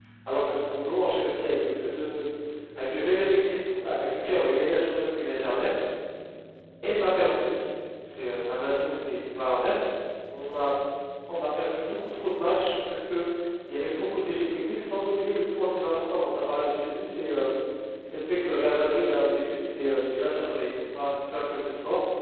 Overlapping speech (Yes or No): No